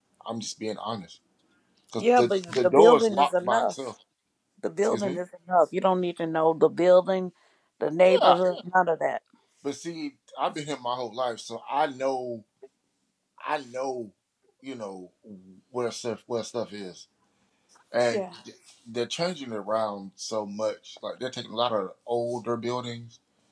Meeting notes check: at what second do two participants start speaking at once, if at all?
2.0 s

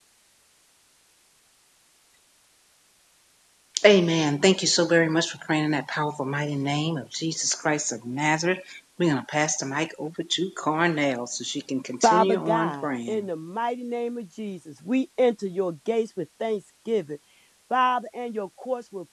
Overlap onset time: 12.0 s

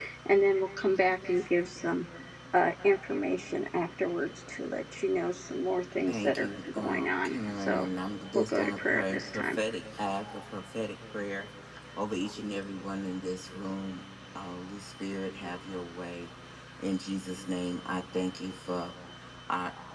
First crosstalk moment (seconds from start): 6.1 s

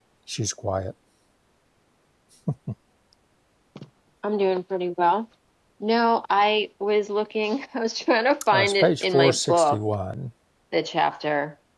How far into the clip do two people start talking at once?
8.5 s

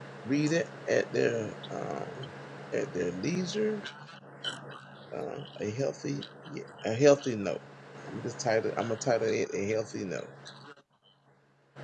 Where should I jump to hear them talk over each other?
none

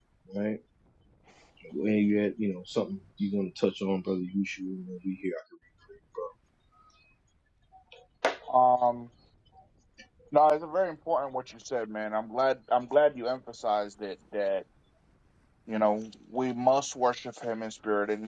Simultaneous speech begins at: none

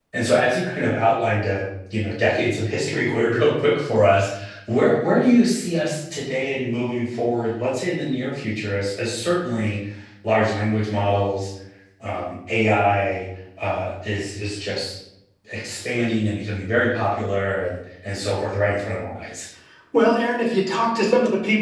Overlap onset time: none

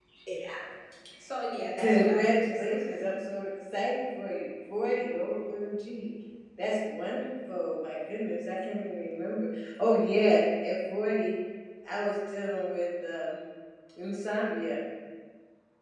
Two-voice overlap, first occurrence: 1.8 s

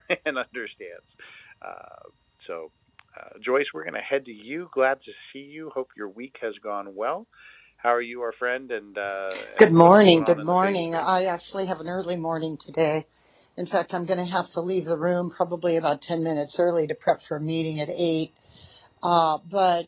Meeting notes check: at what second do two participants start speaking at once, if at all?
9.6 s

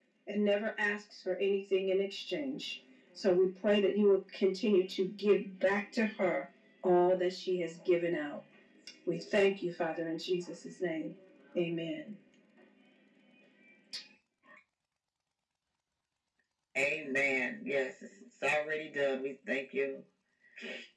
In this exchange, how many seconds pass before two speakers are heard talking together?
none

